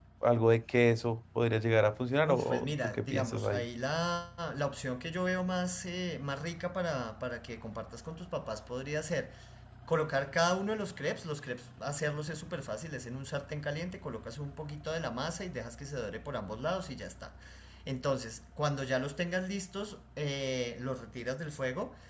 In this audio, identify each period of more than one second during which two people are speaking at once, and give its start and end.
2.2-3.6

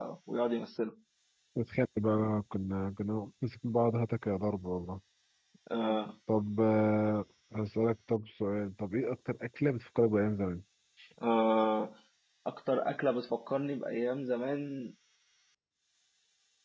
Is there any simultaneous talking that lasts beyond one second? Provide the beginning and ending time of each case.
none

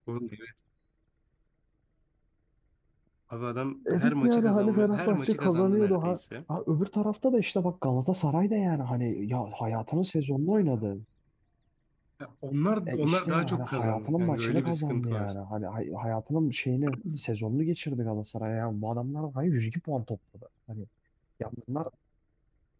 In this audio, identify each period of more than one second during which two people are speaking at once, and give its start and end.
3.9-6.2, 12.9-15.3

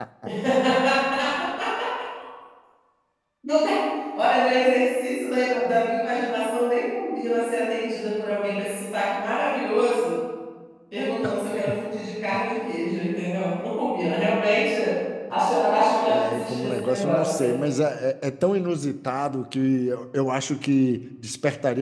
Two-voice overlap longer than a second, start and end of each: 16.1-17.4

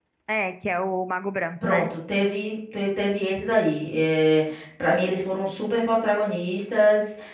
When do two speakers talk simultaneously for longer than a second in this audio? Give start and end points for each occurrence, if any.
none

